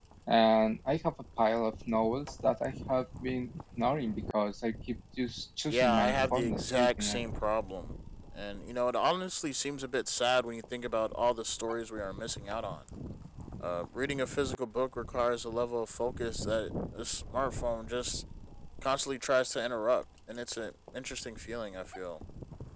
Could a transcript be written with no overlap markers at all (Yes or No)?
No